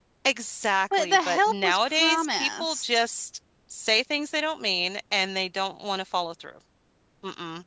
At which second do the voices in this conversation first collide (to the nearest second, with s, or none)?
1 s